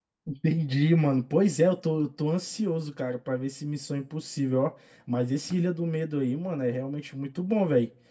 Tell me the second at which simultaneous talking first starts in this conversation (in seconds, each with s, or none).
none